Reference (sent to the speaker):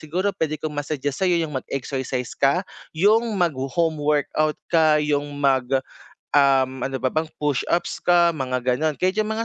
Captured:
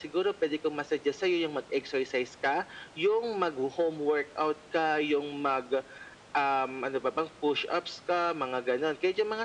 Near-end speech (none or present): none